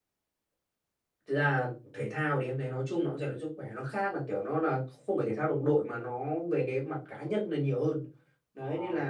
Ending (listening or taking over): listening